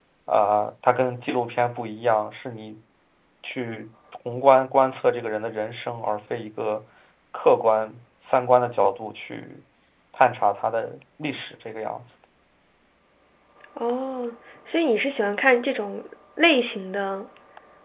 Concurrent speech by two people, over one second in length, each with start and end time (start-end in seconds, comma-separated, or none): none